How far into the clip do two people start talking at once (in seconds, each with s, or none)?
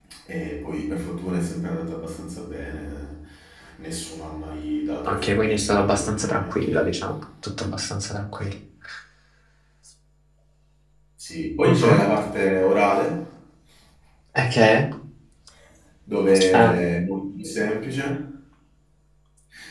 5.1 s